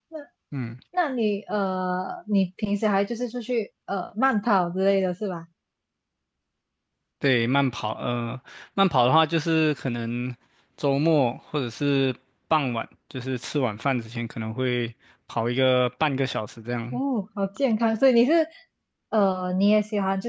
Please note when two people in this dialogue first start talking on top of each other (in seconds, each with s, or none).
none